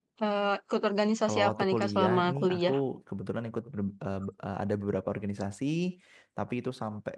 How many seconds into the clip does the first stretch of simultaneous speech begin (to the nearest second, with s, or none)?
1 s